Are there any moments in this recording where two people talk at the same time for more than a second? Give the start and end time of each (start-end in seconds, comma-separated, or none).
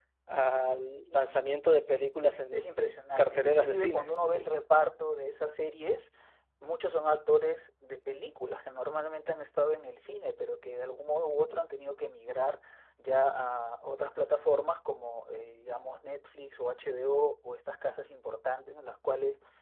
2.5-4.1